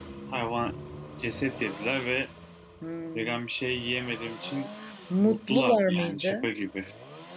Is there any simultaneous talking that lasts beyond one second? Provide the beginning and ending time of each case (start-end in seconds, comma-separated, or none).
5.2-6.5